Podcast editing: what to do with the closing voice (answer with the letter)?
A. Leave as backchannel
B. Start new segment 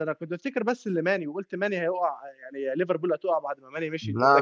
A